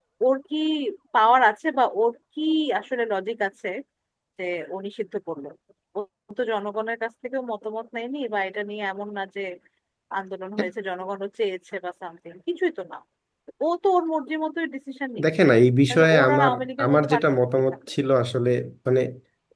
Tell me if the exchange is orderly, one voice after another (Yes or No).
No